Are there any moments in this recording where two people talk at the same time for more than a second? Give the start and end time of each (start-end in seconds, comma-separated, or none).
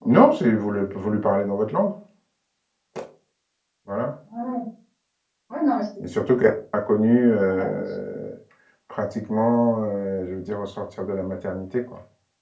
none